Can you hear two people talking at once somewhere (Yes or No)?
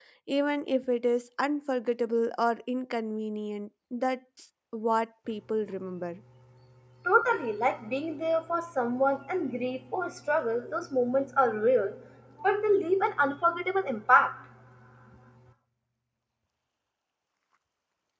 No